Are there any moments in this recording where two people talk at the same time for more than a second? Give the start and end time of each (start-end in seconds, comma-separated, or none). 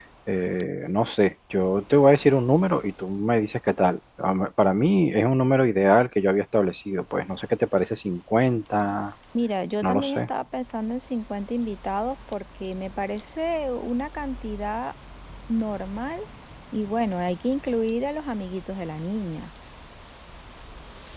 none